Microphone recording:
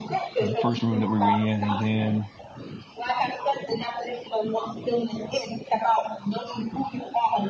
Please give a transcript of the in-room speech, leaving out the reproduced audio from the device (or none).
the first room that we were in. And then